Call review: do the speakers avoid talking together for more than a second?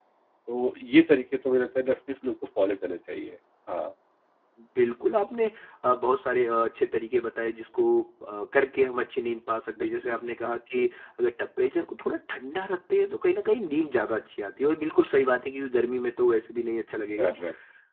Yes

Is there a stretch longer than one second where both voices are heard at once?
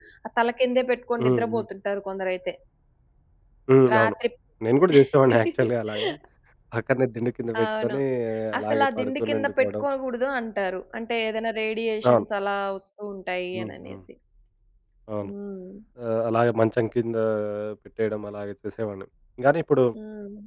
Yes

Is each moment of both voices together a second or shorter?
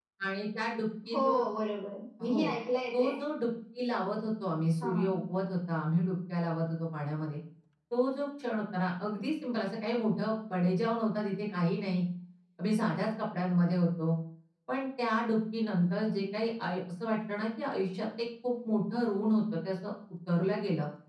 Yes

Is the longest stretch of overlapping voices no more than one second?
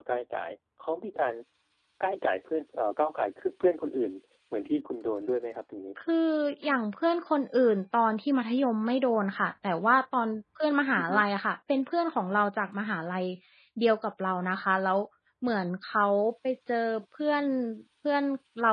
Yes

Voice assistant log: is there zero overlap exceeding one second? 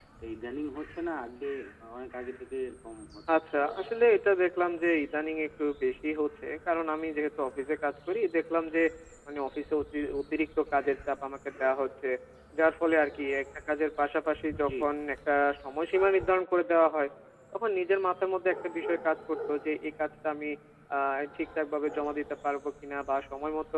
Yes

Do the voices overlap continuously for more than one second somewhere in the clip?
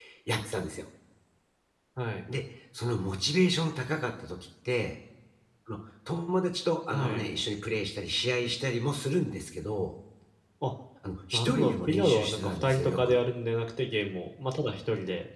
Yes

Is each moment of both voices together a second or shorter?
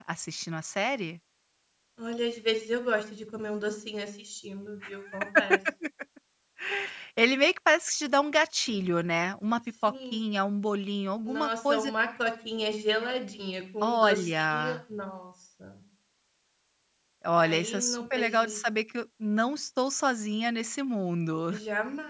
No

